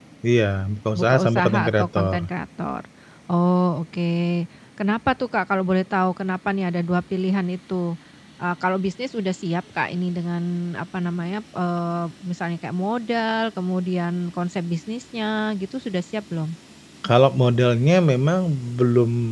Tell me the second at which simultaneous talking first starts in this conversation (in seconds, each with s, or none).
0.9 s